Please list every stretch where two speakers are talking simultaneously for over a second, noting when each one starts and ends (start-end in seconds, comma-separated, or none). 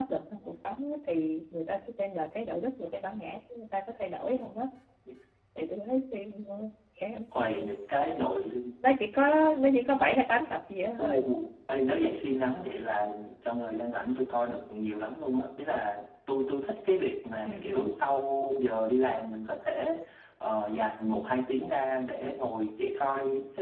none